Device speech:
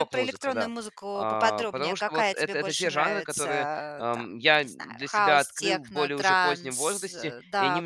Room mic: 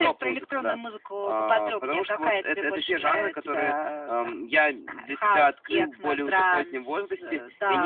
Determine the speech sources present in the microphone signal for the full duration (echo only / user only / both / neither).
echo only